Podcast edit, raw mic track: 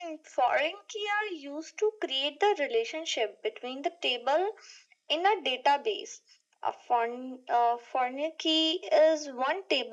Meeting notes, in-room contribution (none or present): none